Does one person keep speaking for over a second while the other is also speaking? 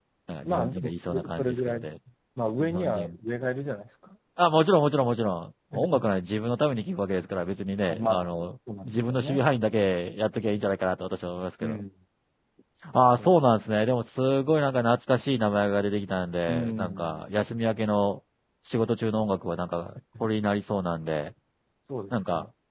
Yes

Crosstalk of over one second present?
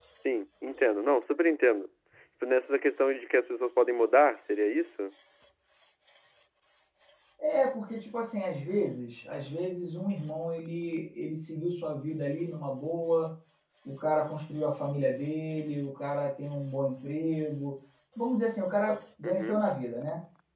No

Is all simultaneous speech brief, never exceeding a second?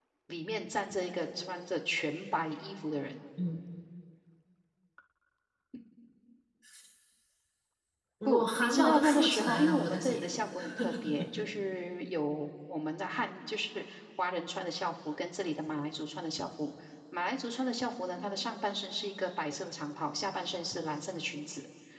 No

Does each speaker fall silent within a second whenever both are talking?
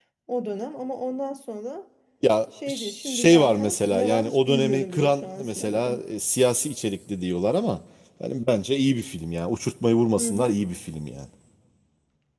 No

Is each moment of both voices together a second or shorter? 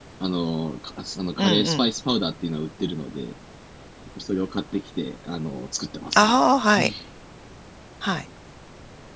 Yes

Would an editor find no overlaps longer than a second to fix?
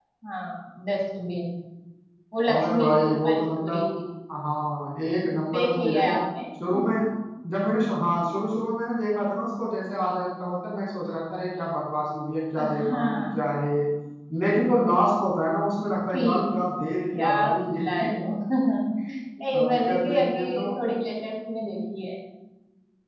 No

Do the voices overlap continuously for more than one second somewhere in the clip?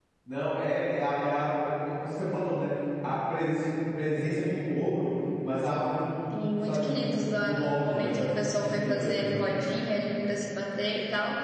Yes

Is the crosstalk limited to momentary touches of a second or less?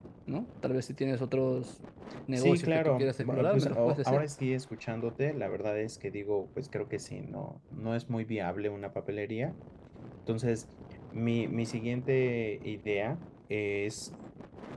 No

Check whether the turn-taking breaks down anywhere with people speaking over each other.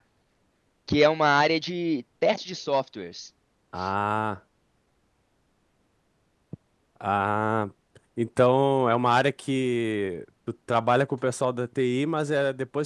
No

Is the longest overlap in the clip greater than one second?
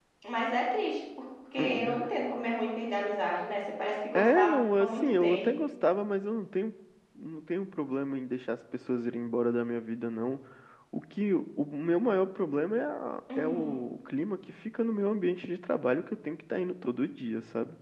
Yes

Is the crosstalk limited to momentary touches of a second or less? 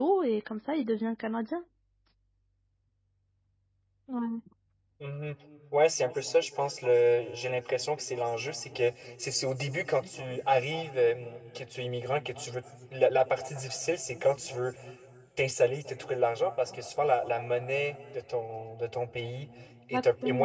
Yes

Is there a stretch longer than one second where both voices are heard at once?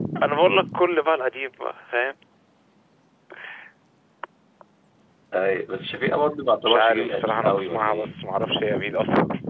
Yes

